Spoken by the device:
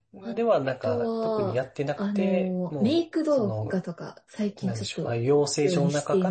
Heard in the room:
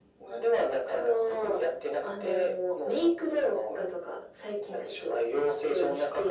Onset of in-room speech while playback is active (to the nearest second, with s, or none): none